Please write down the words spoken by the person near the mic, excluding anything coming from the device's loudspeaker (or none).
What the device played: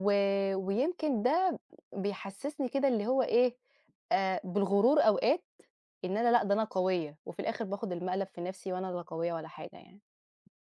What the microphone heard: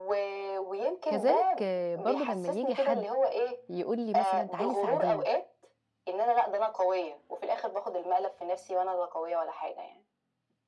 كذلك برضه لمّا ييجي حد يقول لي مثلًا تعالي ساعديني